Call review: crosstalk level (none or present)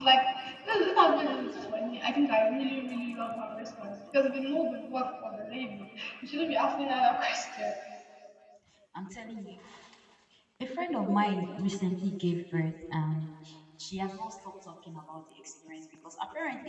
none